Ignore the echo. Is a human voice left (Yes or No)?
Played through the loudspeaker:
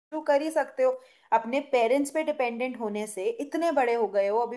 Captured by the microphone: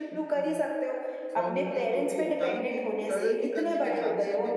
Yes